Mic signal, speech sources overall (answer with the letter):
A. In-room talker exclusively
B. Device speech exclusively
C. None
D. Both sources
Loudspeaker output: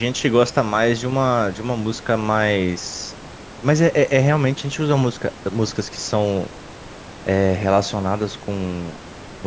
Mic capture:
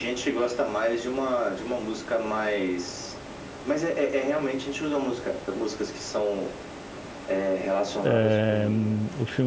D